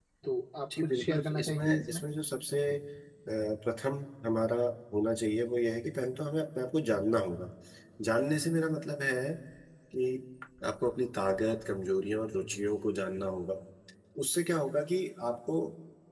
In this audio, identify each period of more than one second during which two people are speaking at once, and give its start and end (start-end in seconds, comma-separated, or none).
0.7-2.0